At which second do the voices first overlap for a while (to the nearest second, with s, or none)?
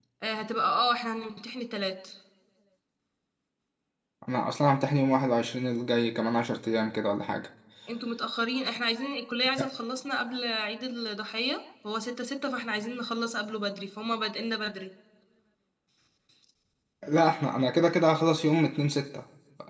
none